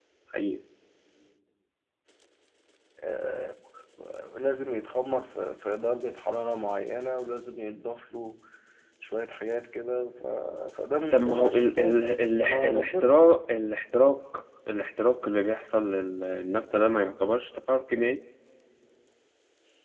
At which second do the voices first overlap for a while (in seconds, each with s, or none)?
11.1 s